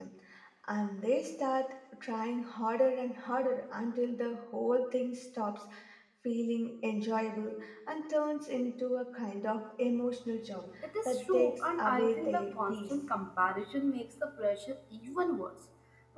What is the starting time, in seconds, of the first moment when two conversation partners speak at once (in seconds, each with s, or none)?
10.8 s